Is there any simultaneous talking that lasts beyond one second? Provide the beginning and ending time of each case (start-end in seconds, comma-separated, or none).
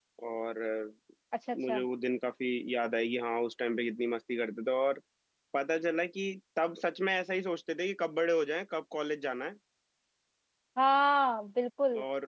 none